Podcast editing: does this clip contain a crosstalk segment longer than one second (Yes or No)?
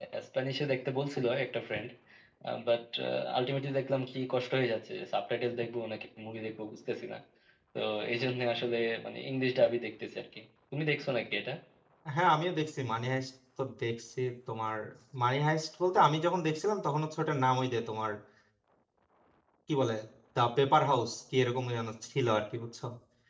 No